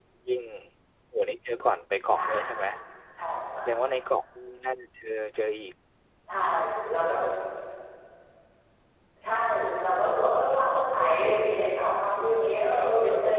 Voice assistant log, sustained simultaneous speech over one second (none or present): none